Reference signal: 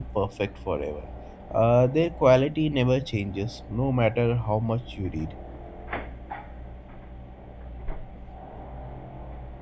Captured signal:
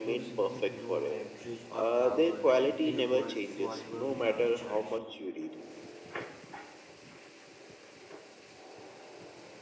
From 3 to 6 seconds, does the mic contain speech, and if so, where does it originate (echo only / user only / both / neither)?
both